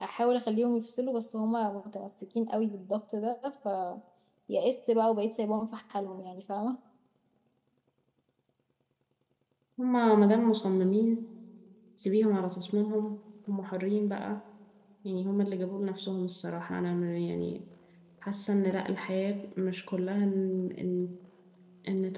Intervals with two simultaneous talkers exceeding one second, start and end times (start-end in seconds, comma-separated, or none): none